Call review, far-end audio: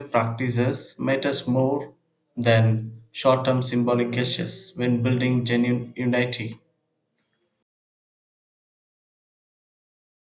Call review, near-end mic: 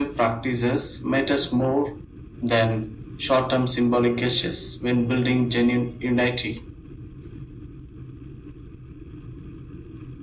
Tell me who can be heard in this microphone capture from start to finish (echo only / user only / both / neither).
echo only